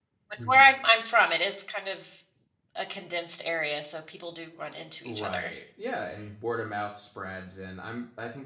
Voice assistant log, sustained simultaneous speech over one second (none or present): none